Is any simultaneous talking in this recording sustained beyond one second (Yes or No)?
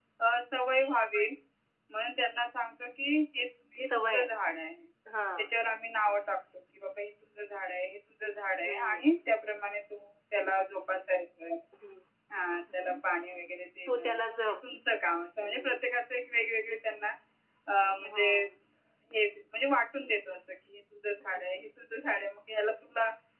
No